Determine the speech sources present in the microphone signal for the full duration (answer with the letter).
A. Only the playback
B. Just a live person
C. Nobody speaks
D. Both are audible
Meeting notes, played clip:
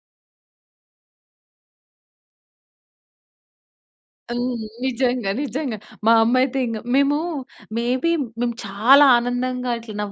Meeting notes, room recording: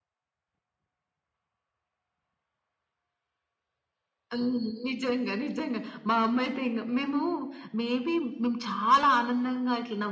A